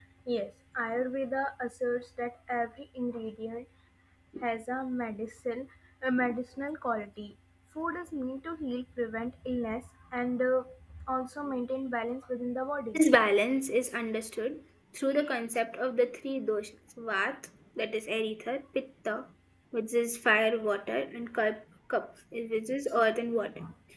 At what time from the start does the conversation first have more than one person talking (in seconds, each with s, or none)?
none